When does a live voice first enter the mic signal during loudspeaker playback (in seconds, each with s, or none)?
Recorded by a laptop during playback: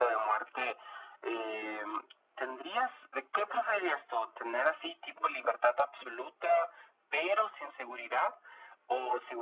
none